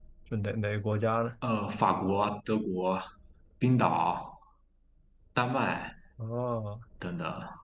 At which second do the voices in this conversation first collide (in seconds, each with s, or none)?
none